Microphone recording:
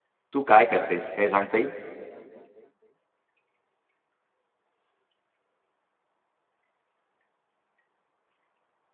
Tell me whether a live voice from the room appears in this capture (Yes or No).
Yes